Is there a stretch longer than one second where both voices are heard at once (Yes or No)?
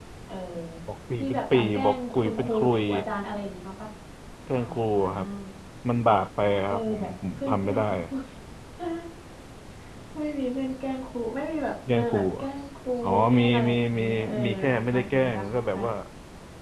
Yes